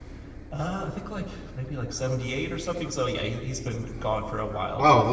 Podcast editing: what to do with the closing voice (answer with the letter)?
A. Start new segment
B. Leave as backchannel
A